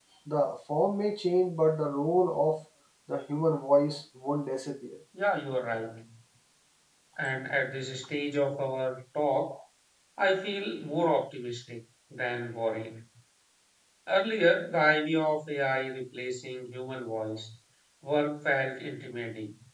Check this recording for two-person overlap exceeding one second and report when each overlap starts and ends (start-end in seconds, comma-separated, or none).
none